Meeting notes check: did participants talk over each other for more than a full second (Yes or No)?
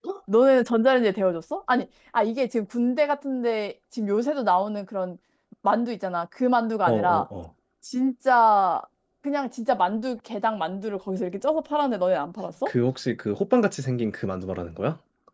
No